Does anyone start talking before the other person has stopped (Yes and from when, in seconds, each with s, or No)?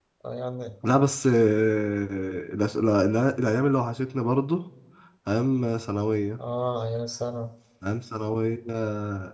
No